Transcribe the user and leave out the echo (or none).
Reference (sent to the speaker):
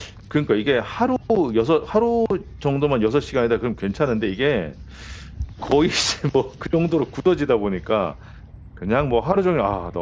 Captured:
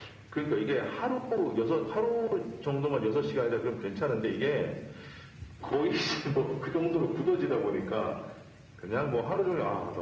none